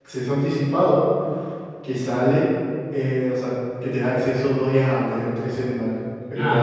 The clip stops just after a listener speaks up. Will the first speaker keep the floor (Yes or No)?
No